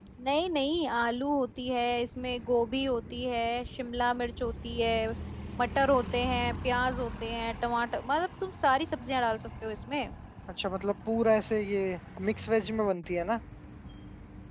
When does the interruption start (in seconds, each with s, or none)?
none